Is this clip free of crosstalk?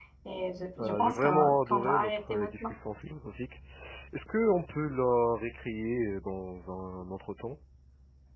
No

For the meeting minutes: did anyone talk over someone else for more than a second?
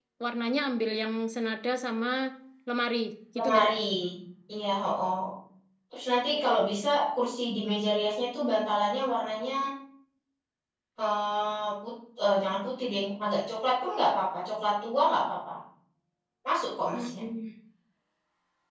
No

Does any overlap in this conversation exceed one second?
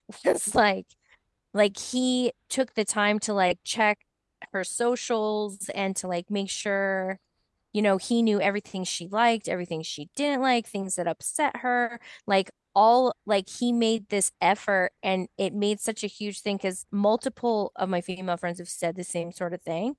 No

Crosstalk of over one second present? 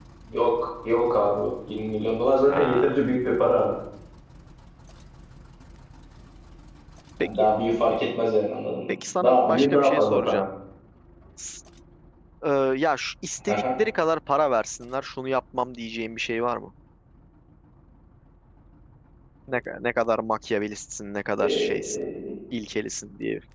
Yes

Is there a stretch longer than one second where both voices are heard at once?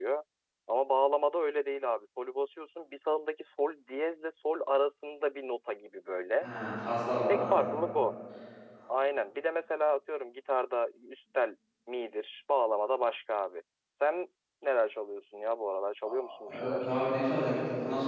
No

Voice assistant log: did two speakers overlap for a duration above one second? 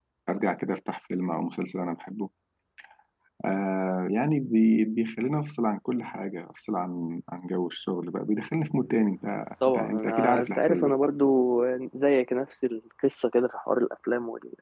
Yes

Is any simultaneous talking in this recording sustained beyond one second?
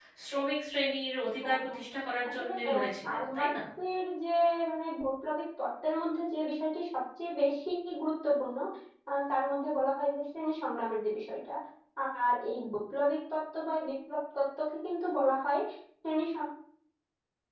Yes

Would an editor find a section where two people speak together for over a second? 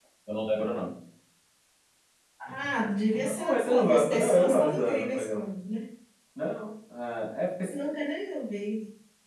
Yes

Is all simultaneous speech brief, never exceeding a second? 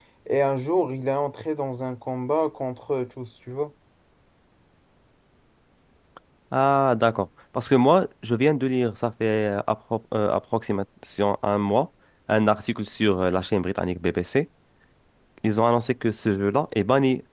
Yes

